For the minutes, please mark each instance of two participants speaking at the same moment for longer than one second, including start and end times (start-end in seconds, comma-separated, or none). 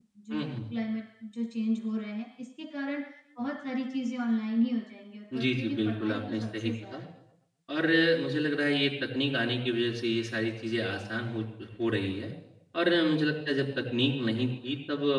5.4-7.0